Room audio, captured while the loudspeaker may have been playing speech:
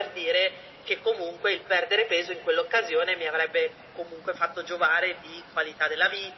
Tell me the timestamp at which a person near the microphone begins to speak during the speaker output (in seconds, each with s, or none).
none